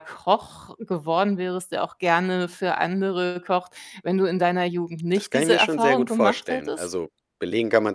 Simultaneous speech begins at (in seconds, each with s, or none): 5.2 s